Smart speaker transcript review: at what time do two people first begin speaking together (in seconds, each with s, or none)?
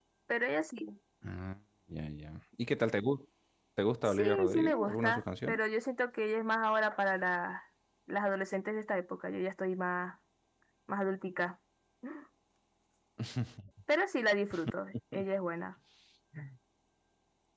4.0 s